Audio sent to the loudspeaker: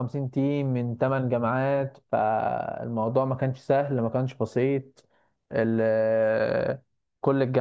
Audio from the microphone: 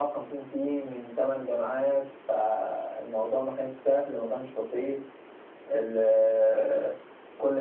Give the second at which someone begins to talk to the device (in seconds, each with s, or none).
none